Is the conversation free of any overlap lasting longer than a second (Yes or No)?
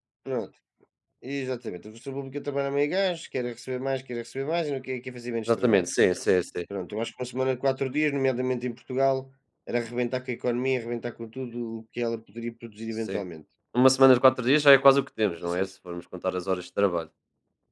Yes